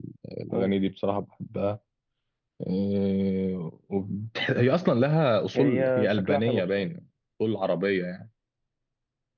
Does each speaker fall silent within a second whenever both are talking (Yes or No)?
No